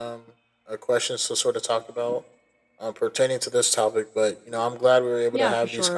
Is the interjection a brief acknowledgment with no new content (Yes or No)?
No